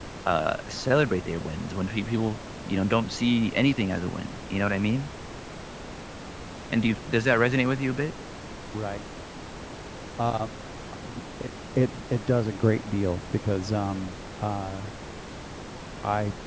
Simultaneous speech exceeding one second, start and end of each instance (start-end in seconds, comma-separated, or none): none